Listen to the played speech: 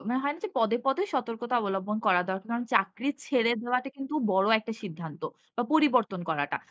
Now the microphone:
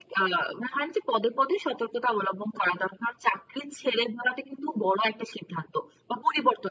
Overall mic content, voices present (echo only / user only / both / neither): echo only